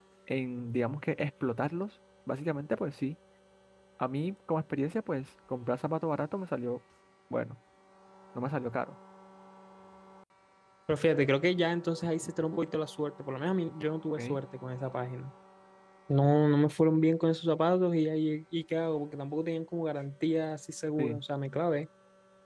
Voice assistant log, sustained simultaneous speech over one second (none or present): none